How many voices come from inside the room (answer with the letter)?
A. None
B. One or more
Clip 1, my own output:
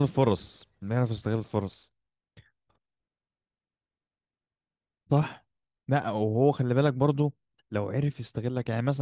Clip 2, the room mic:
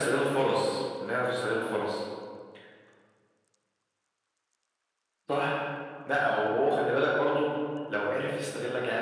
A